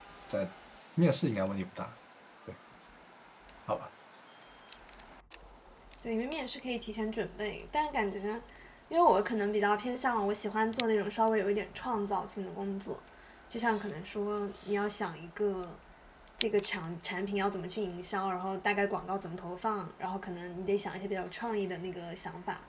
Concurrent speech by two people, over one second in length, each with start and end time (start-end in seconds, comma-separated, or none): none